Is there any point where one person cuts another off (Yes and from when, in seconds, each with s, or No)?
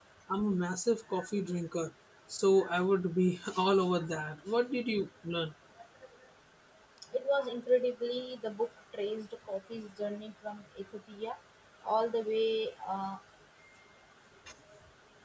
No